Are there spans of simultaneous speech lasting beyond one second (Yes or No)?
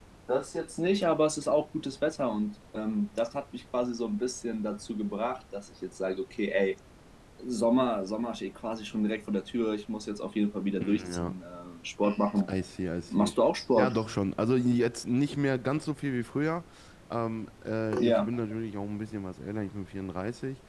No